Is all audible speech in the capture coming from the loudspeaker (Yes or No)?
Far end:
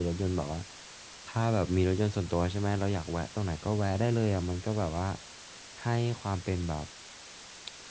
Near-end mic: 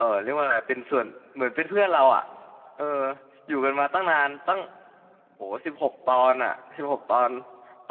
No